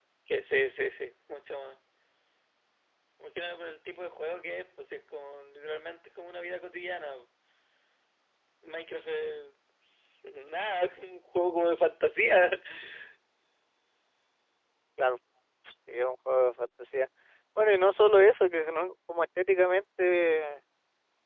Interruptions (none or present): none